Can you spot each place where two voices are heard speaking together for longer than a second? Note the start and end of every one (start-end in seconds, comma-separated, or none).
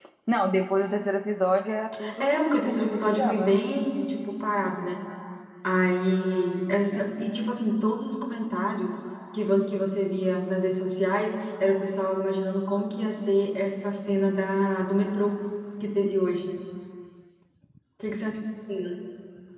2.2-3.5